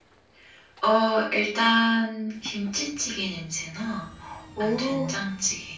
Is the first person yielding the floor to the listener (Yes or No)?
No